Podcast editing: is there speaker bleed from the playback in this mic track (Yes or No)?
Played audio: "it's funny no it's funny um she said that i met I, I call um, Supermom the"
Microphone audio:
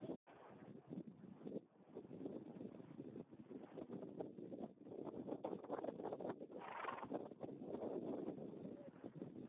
No